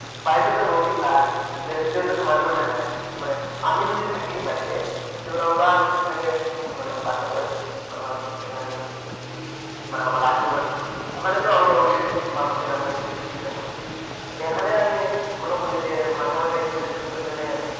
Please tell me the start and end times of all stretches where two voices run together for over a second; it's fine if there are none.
none

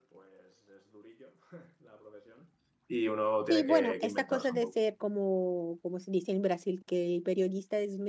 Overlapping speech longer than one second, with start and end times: 3.5-4.8

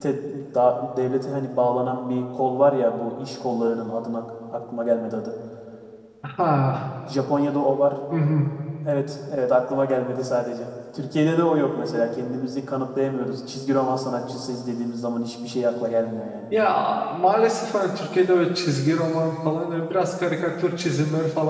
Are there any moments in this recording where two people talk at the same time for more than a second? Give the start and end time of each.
none

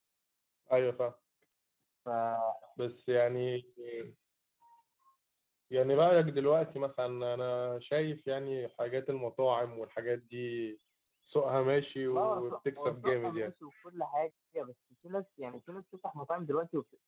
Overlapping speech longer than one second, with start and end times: 12.1-13.5

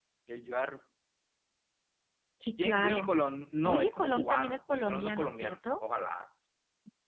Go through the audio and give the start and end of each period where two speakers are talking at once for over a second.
3.6-5.8

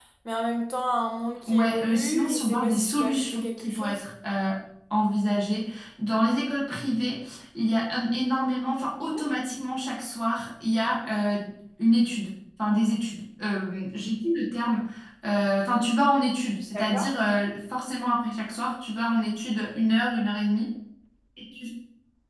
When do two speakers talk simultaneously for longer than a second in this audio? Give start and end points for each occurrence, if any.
1.5-4.0

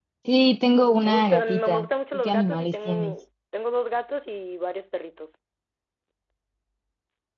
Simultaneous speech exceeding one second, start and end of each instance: 1.0-3.1

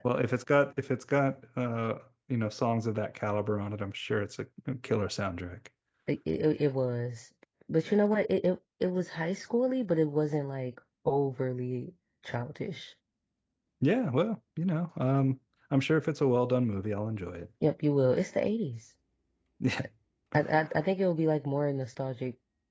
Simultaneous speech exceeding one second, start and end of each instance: none

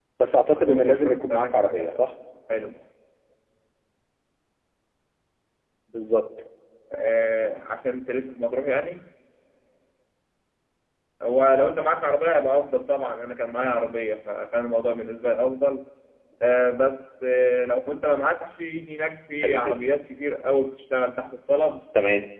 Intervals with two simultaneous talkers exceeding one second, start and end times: 0.6-2.0

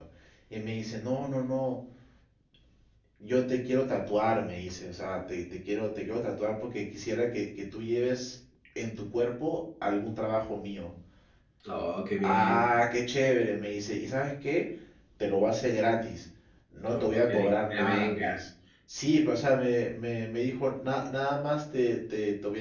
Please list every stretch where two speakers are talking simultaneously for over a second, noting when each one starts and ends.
16.9-18.4

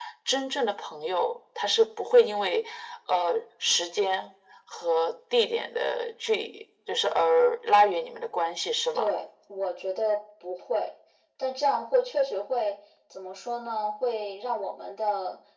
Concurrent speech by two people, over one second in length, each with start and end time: none

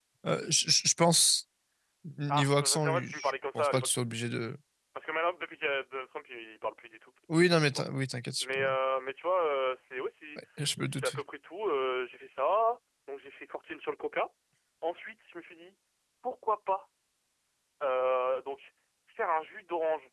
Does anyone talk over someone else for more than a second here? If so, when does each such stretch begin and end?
2.3-3.9

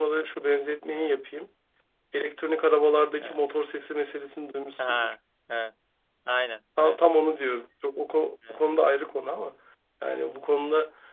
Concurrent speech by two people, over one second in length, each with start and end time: none

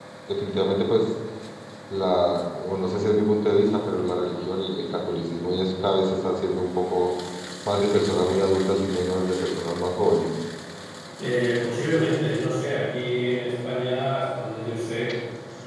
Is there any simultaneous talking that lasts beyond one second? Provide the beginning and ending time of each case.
none

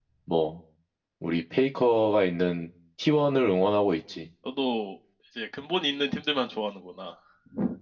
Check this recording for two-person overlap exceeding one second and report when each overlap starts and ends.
none

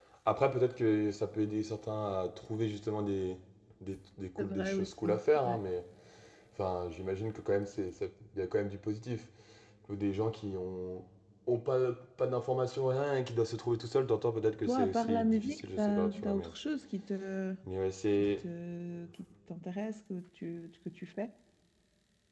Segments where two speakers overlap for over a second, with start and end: 4.4-5.6, 14.7-16.5

